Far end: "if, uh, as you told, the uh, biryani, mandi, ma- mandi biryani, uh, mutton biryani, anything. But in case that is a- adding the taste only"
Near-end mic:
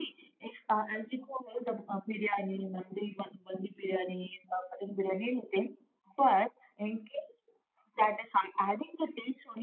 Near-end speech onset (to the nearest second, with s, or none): none